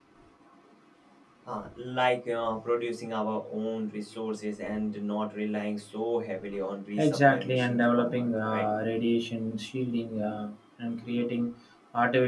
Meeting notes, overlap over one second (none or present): present